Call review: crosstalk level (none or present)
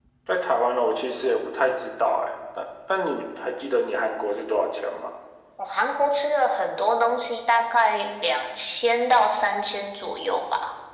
none